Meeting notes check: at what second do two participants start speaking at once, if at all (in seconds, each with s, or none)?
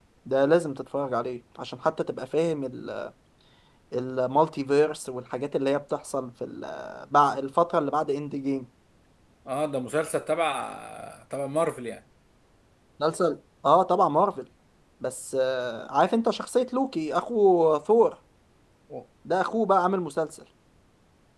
none